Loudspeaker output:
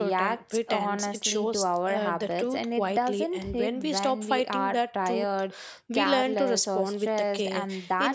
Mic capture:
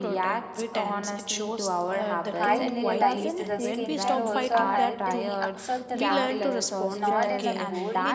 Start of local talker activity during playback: 2.4 s

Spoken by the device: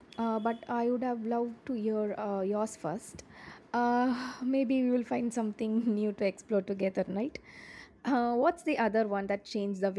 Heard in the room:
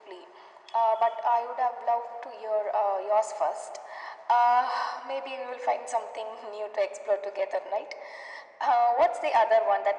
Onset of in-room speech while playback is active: none

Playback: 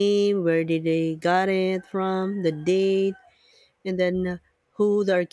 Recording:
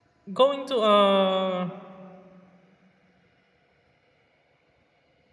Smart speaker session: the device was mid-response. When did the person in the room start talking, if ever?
0.3 s

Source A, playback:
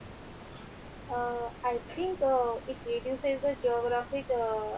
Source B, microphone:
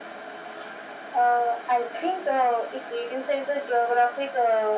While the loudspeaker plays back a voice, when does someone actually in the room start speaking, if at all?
none

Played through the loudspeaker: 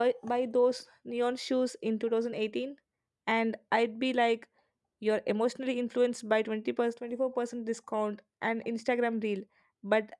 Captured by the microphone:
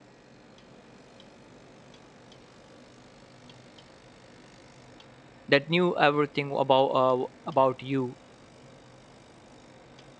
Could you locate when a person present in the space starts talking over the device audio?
5.5 s

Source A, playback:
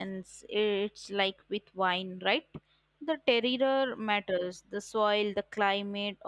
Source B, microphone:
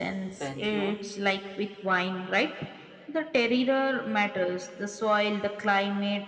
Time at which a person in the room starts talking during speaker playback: 0.4 s

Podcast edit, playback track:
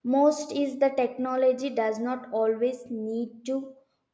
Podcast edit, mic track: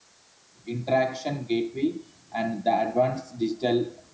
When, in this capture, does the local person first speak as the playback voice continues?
0.6 s

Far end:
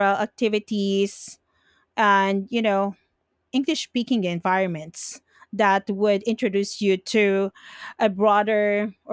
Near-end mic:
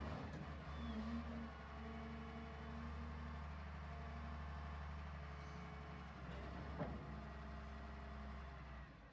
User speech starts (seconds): none

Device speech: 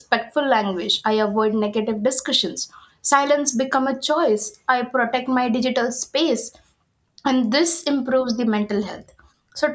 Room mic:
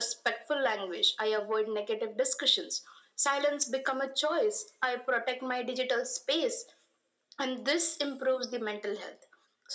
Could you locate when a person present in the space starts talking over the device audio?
none

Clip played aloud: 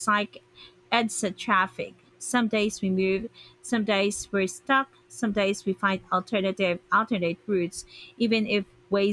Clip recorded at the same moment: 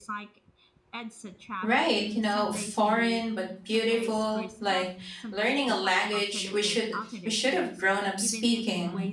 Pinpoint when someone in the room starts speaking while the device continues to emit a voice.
1.6 s

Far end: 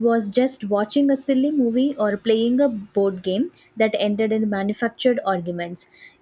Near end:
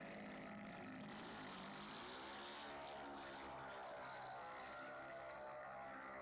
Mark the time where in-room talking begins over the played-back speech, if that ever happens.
none

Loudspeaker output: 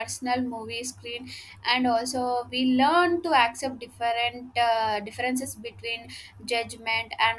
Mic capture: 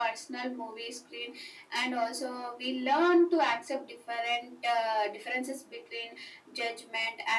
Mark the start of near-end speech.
none

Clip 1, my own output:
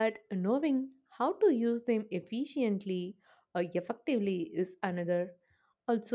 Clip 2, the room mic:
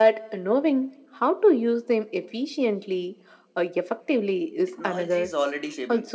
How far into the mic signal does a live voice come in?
4.7 s

